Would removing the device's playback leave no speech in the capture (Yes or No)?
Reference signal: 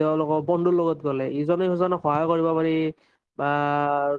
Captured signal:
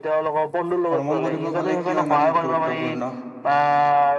No